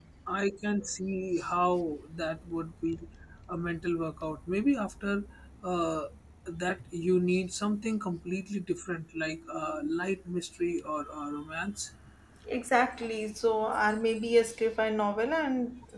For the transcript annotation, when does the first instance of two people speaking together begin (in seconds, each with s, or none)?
none